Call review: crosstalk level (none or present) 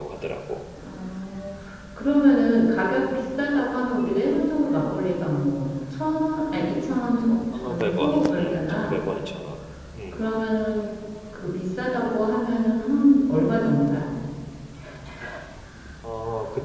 present